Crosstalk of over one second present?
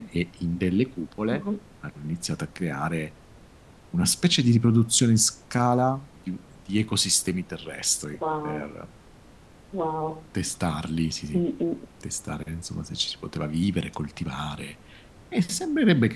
No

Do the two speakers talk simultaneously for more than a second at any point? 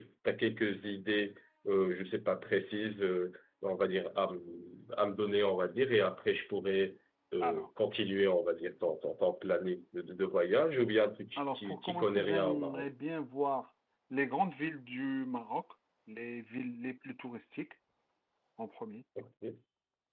Yes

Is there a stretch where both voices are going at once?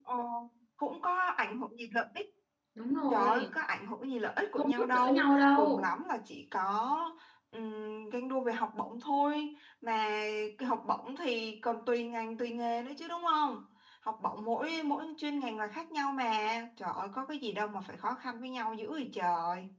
Yes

